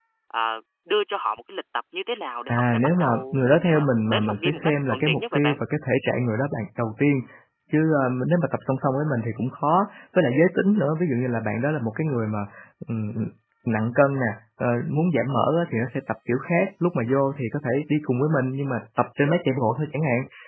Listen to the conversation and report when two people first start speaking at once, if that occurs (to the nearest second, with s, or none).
2 s